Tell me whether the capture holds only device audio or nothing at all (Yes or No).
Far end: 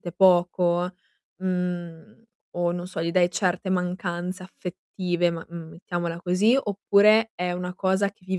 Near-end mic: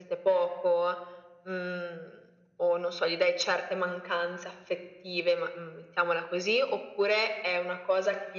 Yes